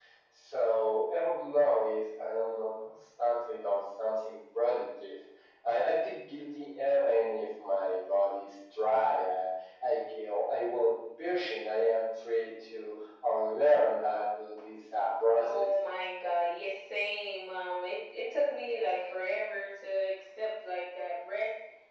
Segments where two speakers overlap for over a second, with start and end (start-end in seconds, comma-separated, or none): none